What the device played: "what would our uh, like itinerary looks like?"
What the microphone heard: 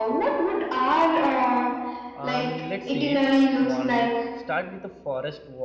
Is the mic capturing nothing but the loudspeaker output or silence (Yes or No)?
No